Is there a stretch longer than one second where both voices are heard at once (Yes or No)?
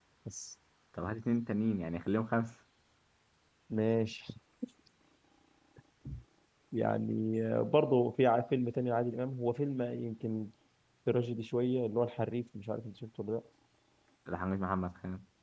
No